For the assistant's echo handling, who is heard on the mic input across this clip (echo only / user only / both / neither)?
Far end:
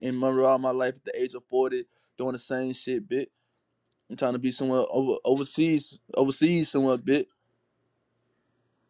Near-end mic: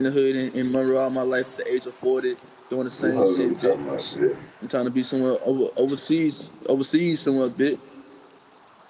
both